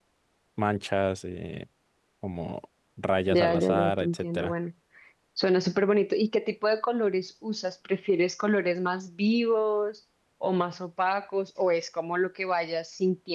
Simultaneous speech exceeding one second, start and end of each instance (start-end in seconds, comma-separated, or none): 3.3-4.5